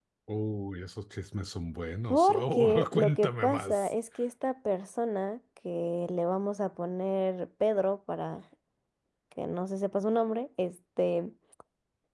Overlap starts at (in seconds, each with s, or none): 2.1 s